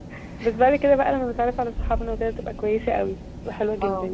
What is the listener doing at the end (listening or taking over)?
taking over